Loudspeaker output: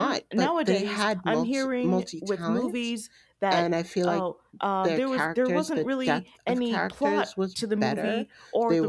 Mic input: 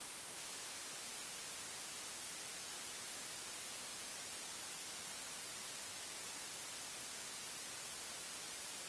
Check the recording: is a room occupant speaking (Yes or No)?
No